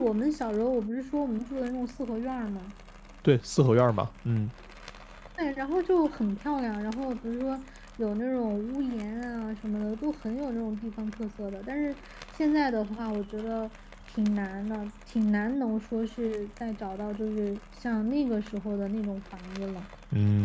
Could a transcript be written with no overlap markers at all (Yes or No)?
Yes